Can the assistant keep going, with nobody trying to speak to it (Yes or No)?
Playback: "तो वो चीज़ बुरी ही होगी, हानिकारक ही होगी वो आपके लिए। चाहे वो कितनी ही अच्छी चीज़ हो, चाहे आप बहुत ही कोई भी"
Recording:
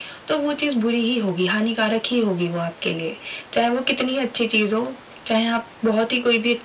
Yes